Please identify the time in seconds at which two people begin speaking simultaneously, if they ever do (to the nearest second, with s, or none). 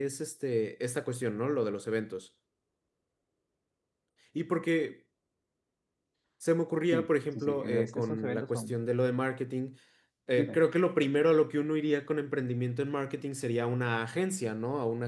7 s